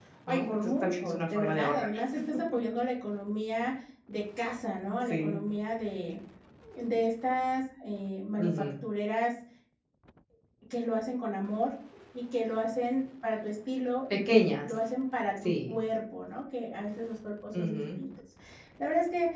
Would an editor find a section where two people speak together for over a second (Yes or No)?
Yes